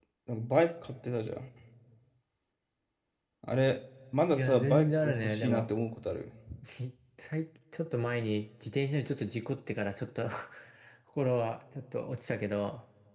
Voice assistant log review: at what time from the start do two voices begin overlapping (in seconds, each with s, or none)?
4.3 s